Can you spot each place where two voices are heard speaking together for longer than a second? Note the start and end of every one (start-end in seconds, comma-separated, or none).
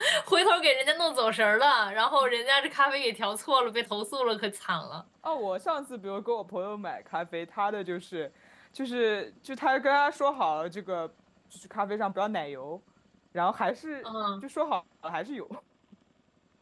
none